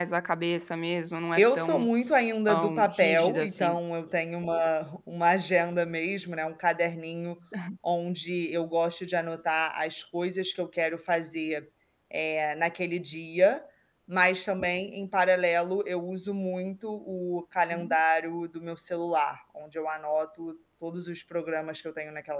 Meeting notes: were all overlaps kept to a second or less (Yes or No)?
No